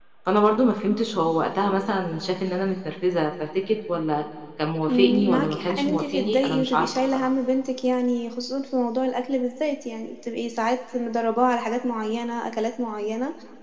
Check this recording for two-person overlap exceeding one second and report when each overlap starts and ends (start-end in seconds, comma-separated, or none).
4.9-7.3